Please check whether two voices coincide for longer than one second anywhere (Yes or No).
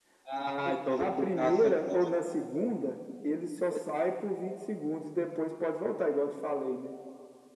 Yes